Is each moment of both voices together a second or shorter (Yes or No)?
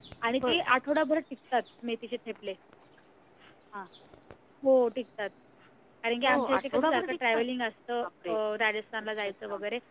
No